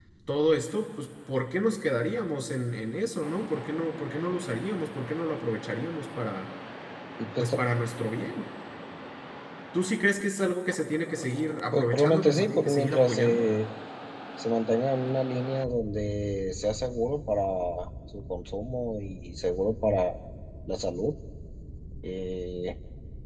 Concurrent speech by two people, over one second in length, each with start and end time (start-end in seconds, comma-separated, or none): 11.7-13.5